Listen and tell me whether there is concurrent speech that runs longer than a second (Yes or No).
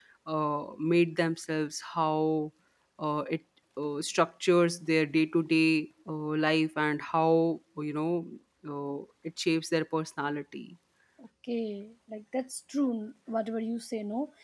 No